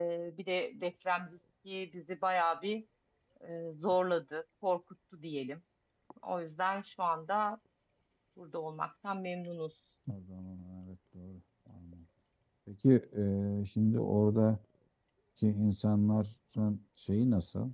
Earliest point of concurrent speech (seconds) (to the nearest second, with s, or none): none